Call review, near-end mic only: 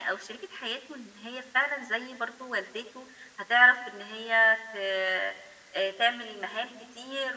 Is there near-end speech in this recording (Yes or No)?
No